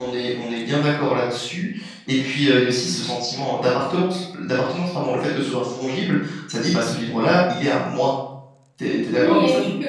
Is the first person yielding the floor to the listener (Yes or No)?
Yes